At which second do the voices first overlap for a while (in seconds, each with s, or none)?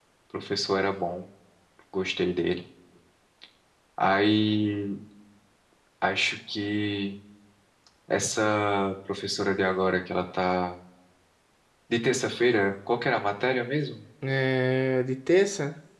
none